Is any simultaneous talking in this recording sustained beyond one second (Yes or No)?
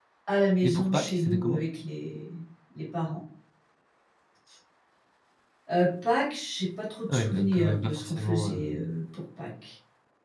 Yes